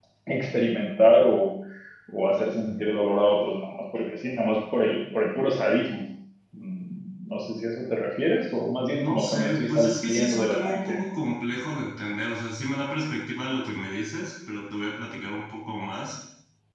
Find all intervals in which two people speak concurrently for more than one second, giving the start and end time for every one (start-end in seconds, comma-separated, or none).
8.9-11.0